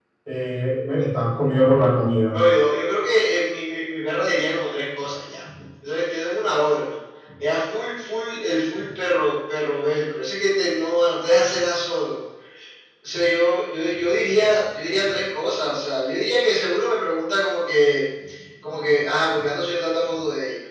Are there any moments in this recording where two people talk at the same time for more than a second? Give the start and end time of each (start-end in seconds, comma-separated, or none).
none